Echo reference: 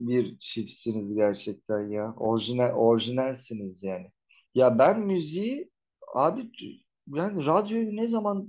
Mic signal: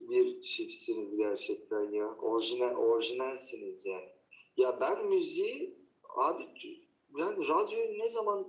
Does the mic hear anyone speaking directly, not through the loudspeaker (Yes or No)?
No